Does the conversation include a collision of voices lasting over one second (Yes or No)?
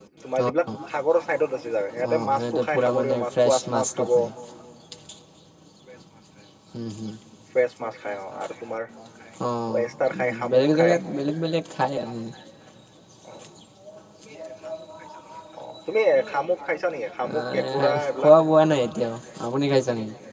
Yes